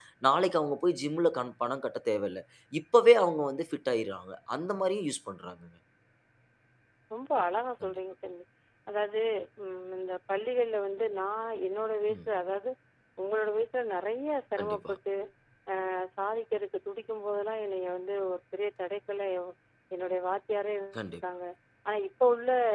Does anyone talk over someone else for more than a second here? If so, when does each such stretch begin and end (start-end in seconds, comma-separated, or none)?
none